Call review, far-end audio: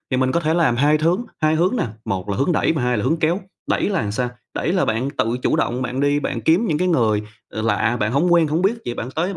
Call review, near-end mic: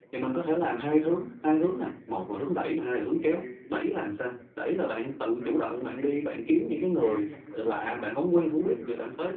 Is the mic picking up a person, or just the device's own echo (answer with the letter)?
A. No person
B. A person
B